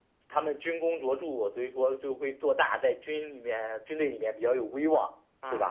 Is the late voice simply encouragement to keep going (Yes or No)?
Yes